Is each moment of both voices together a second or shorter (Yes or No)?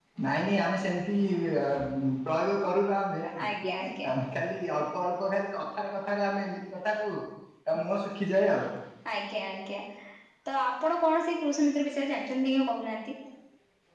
Yes